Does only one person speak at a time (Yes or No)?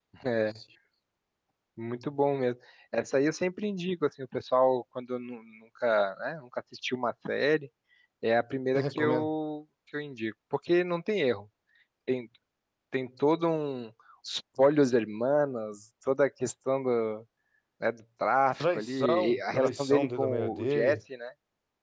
No